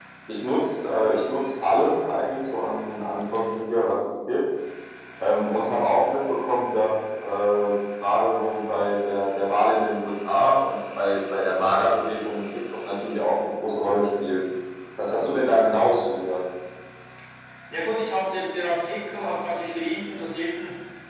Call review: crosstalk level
none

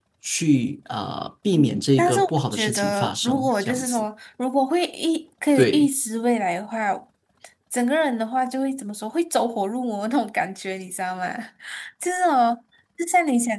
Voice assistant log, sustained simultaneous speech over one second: present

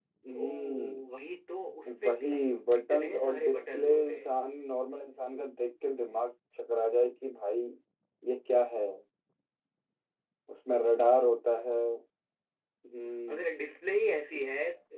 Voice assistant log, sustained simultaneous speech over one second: present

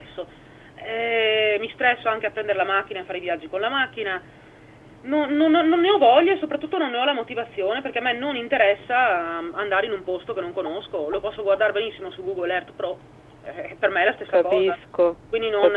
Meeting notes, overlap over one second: none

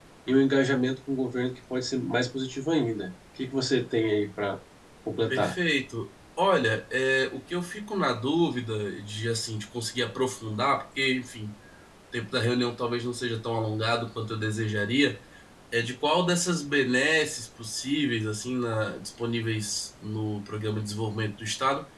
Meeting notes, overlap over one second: none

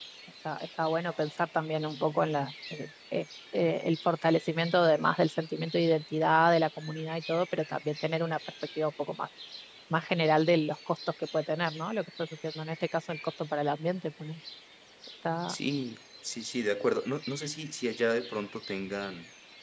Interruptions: none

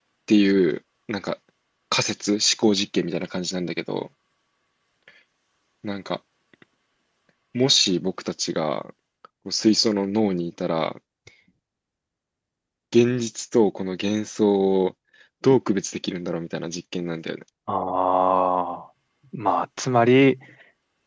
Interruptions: none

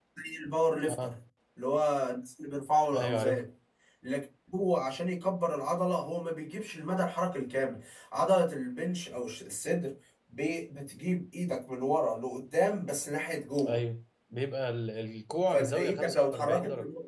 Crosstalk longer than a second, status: present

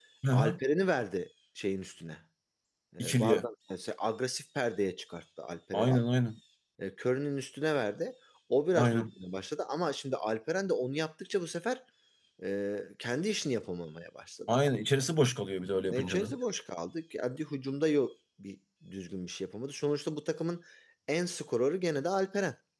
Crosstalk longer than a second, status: none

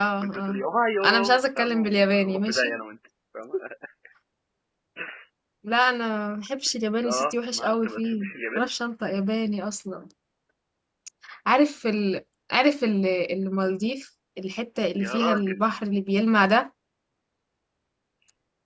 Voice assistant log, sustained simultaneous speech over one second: present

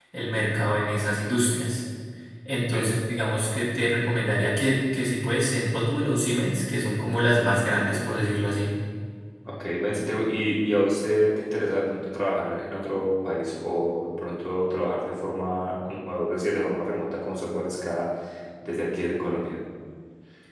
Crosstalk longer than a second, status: none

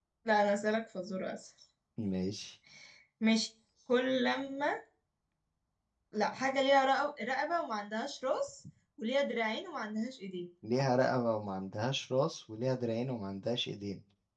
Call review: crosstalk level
none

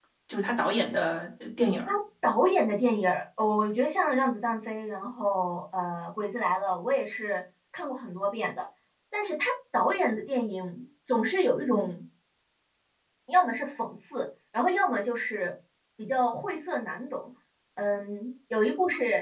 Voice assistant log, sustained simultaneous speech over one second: none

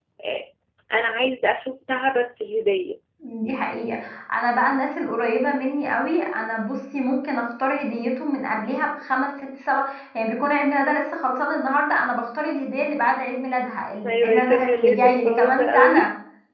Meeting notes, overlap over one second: present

